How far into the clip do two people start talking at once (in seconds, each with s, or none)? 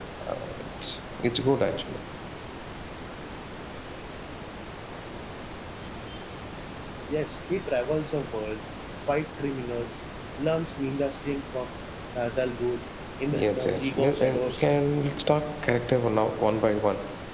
13.3 s